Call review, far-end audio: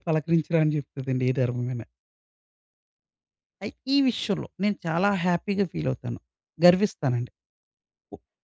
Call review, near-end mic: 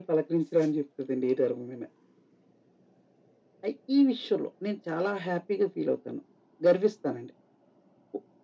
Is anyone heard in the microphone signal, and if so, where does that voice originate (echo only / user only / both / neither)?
echo only